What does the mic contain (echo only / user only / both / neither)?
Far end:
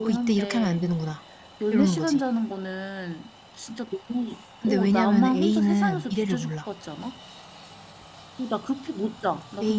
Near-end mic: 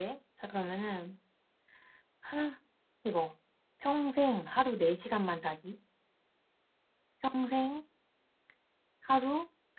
user only